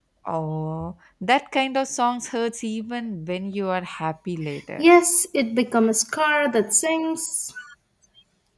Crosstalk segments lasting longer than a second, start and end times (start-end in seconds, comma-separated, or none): none